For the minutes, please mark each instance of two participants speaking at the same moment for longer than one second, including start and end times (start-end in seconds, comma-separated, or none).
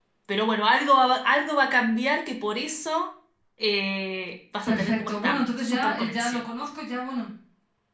4.7-6.4